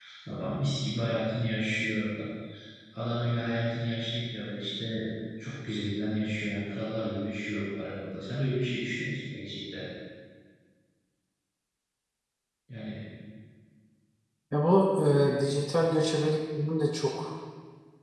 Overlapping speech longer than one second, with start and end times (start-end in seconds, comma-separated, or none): none